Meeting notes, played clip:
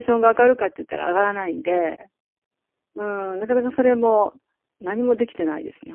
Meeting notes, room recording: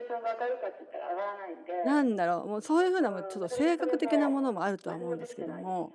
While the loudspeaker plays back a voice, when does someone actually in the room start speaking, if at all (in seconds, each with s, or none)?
1.8 s